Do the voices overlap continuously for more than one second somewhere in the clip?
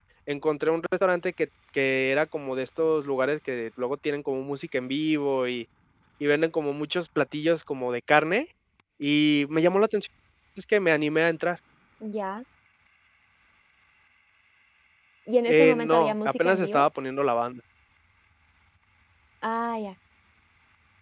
Yes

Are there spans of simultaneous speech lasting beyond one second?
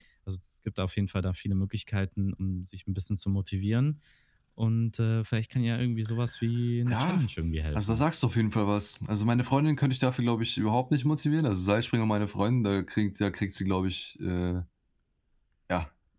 No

